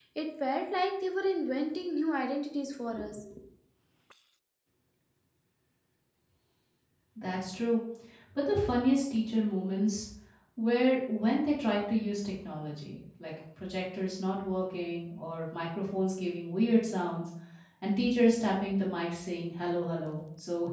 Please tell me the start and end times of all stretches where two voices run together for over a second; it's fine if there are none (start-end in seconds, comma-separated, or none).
none